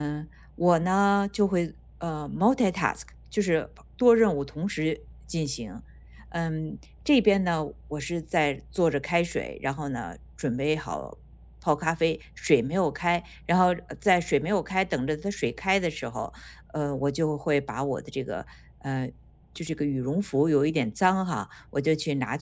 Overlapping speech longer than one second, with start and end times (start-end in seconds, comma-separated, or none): none